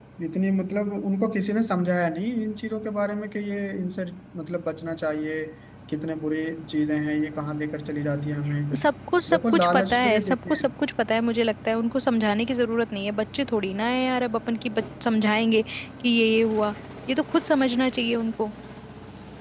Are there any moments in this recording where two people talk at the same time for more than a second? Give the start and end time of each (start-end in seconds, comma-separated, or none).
9.3-10.6